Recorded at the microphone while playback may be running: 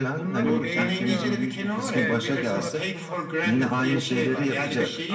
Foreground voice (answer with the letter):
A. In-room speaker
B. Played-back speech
B